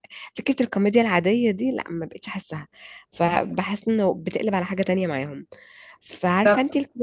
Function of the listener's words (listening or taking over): listening